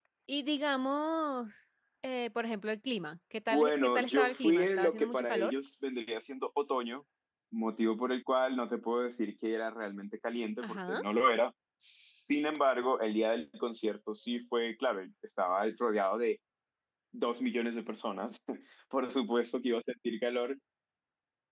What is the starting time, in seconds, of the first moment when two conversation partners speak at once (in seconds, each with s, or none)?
3.5 s